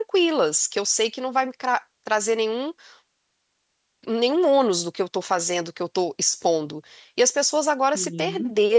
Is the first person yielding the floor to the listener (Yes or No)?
No